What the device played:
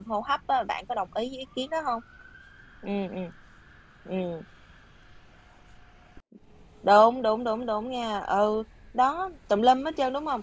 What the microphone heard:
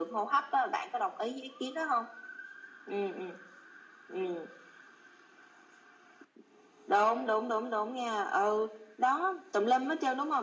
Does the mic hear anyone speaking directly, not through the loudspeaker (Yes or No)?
No